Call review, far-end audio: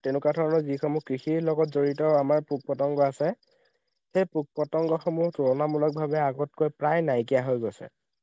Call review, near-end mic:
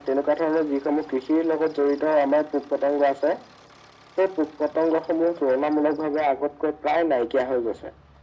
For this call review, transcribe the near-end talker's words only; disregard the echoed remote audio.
none

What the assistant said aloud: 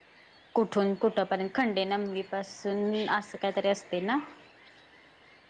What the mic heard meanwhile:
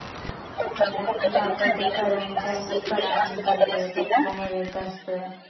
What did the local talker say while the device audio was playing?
दिवशी आपण ते करंजानी कडाकणी करतोय त्याचा नैवेद्य असतोय

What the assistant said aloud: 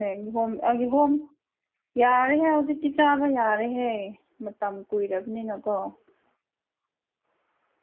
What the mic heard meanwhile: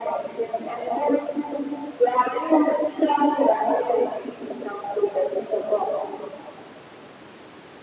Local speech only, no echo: none

